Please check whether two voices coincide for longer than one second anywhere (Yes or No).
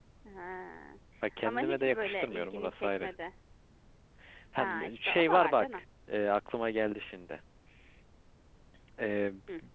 Yes